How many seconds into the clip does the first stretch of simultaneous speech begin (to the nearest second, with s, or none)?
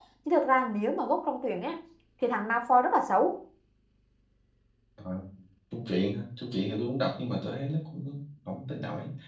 none